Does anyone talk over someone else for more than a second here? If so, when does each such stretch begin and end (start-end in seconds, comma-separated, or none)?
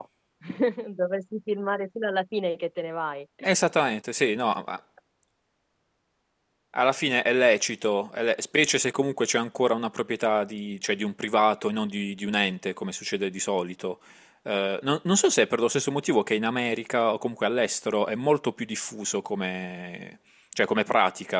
none